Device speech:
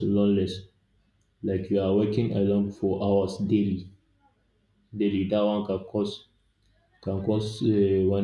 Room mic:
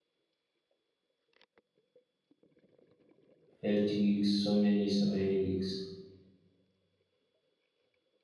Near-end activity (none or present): present